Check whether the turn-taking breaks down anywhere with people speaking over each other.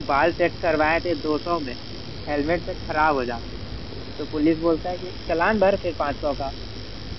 No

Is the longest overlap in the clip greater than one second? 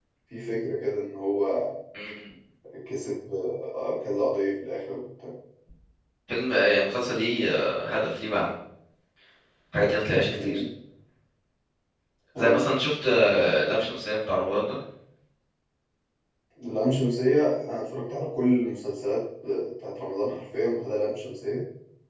No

